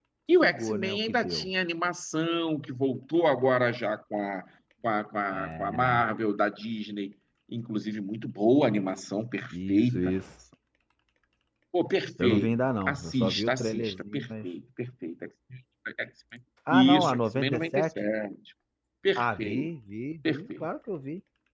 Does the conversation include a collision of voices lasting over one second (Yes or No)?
Yes